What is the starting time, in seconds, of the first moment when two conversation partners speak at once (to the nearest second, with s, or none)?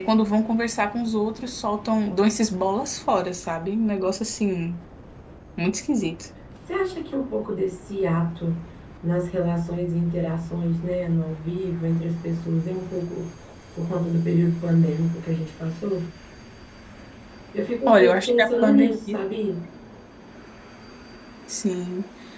18 s